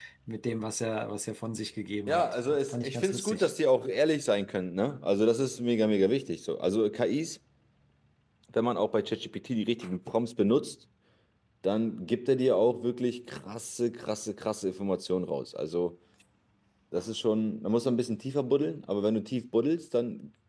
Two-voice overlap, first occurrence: 2.1 s

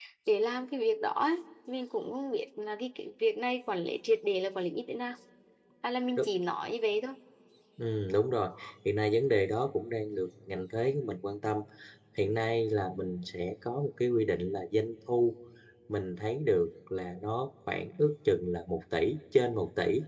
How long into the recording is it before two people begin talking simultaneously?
none

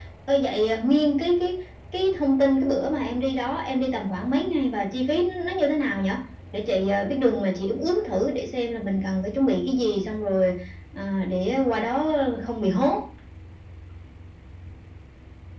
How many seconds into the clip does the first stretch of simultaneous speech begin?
none

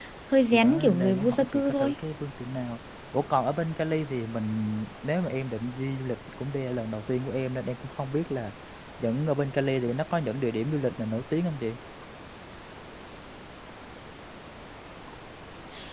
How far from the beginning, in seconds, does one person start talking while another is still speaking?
0.5 s

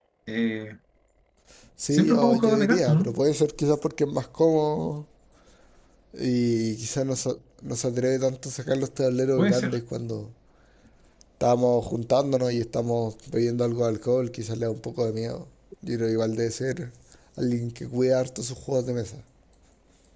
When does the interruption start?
1.9 s

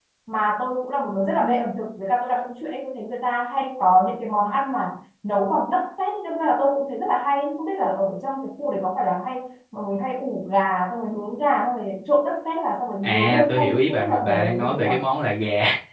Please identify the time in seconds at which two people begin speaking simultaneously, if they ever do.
13.0 s

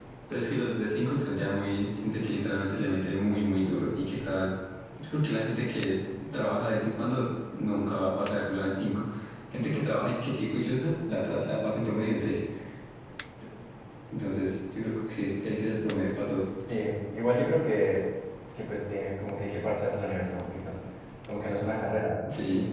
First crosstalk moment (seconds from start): none

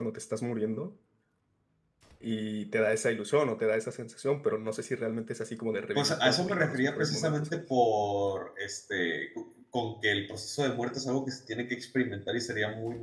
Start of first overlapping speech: 6.0 s

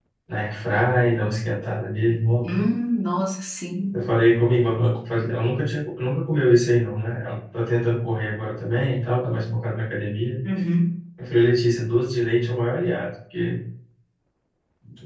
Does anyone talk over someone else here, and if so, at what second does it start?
none

